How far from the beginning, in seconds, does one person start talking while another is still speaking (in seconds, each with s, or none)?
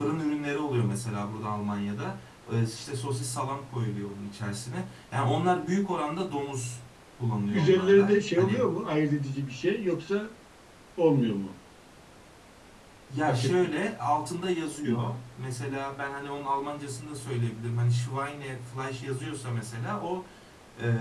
7.5 s